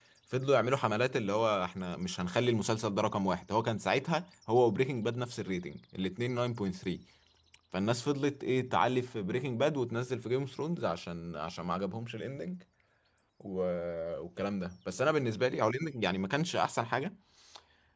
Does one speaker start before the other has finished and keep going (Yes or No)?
No